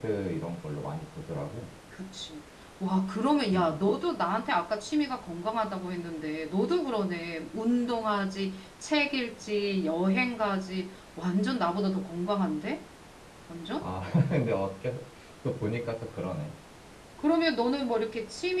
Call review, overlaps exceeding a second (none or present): none